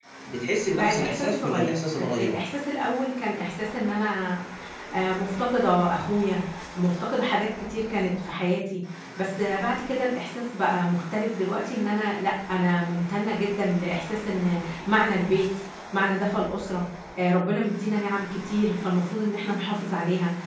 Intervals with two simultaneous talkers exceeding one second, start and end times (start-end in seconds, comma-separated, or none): 0.8-2.4